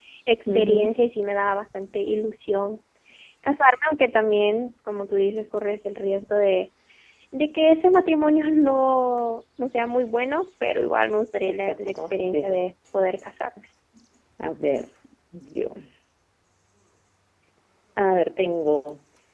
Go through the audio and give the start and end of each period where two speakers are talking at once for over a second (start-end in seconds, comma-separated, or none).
11.4-12.7